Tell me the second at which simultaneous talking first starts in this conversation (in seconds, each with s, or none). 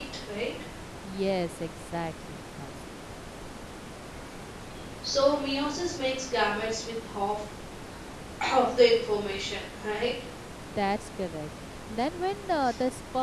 none